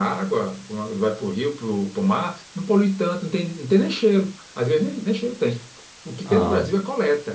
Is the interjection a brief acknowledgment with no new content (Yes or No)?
Yes